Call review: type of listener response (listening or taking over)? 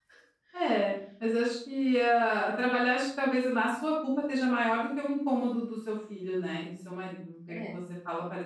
listening